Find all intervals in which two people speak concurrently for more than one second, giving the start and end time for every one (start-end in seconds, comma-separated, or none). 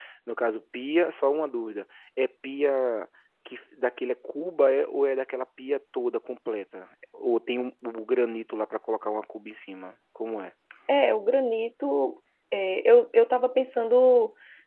none